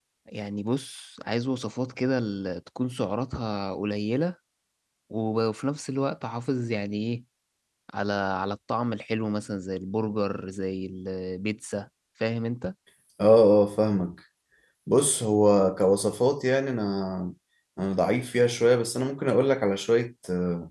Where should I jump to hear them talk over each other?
none

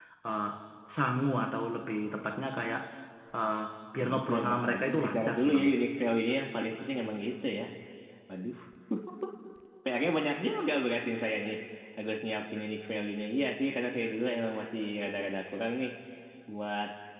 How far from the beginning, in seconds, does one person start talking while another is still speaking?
4.0 s

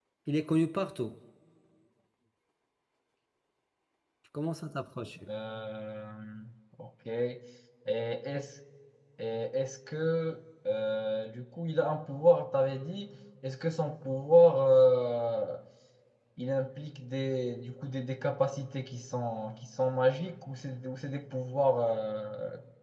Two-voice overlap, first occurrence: none

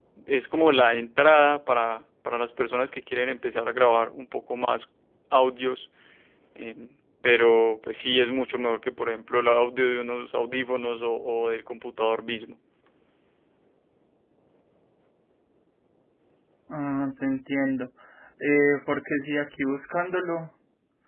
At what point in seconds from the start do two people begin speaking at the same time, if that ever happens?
none

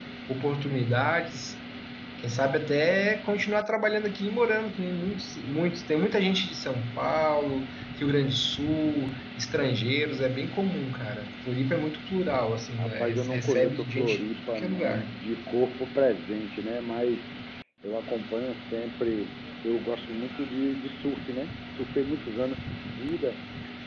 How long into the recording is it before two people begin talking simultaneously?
12.8 s

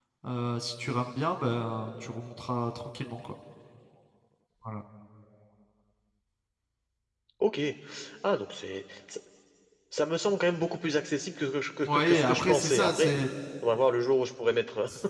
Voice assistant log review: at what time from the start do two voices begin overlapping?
11.8 s

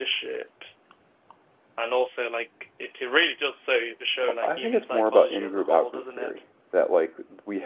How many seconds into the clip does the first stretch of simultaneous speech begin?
4.2 s

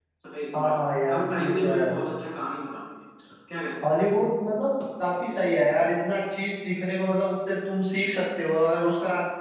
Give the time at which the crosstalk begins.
0.5 s

